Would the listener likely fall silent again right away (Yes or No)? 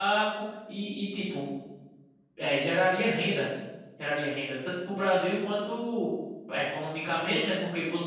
Yes